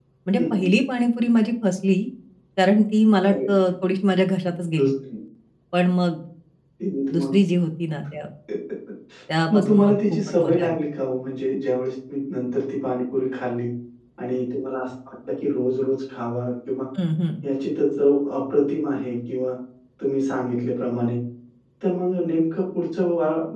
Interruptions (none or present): present